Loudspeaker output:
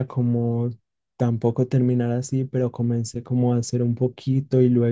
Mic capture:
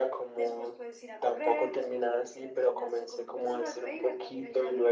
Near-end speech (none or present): present